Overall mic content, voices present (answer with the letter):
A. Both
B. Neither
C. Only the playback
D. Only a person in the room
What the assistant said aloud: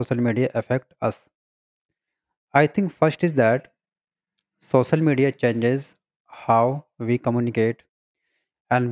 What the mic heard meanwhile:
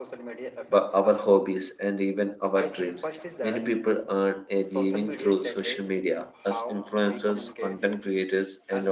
A